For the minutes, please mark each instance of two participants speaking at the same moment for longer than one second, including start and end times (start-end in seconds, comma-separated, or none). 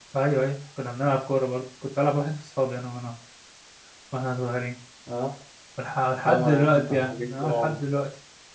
6.2-7.8